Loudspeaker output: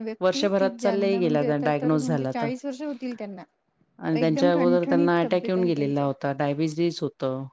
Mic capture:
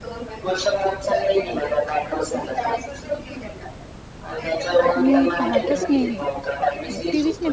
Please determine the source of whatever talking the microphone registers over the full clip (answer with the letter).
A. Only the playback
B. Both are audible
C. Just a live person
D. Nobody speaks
B